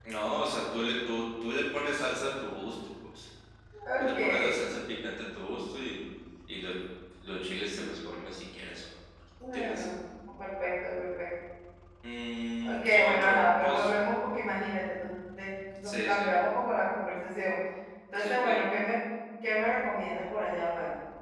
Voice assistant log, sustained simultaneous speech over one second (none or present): present